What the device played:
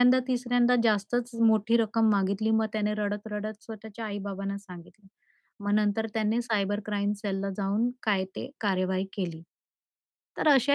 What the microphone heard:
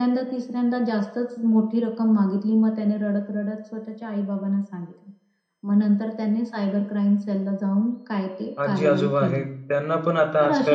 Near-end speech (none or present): present